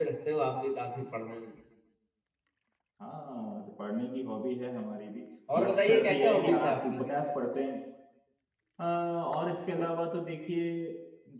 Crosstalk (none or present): present